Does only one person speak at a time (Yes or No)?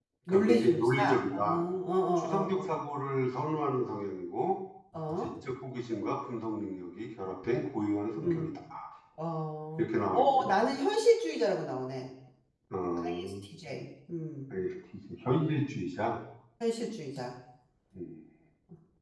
No